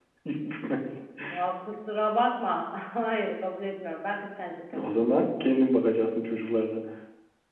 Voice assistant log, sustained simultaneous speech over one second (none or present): none